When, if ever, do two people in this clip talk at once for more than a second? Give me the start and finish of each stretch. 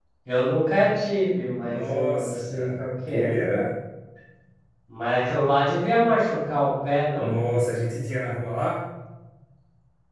1.6-3.4

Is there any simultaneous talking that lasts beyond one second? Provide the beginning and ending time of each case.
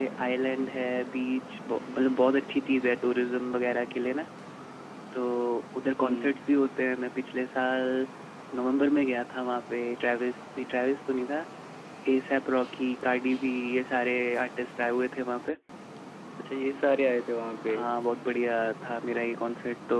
none

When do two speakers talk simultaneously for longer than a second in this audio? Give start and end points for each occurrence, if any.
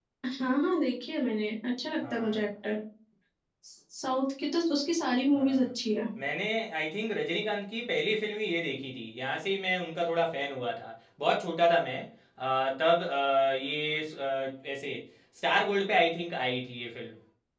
none

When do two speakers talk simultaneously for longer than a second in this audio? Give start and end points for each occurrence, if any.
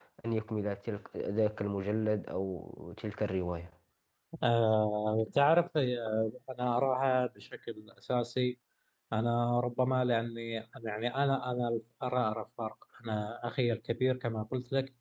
none

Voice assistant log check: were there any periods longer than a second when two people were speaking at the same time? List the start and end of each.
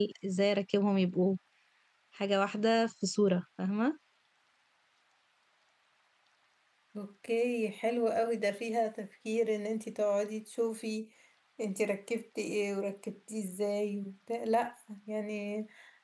none

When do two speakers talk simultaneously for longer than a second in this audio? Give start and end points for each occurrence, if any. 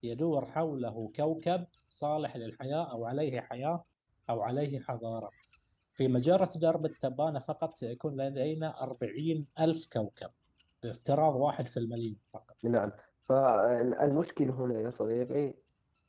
none

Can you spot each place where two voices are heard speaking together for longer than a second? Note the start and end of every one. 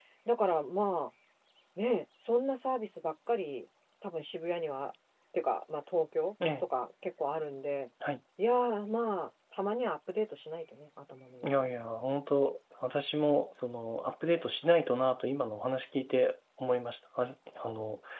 none

